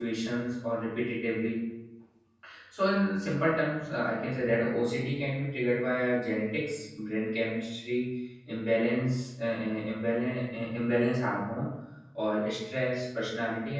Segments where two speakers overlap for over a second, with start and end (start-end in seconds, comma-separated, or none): none